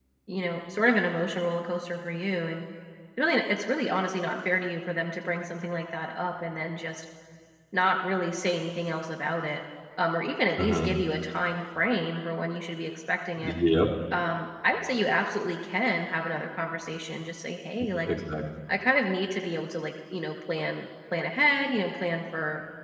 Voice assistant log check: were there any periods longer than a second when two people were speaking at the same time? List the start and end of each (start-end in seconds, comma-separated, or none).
none